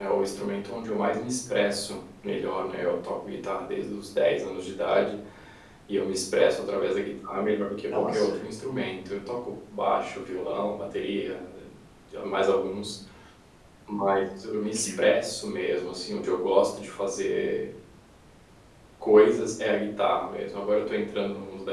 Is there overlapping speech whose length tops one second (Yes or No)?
No